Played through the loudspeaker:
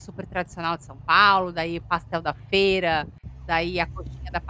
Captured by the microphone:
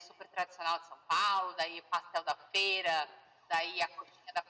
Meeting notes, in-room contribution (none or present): none